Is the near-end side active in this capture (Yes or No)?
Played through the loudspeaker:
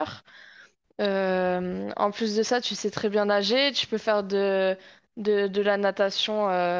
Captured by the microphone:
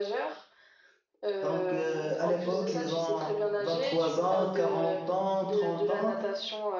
Yes